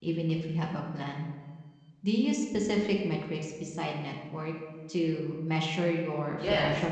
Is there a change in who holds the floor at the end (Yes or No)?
Yes